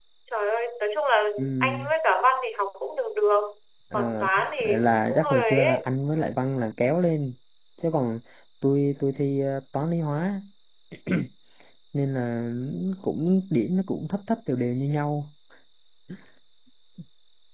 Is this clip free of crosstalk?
No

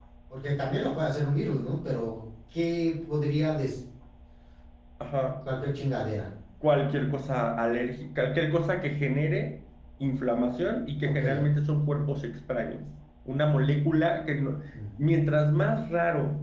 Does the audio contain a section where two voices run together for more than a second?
No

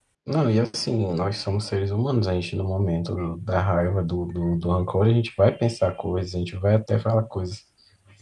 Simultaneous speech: No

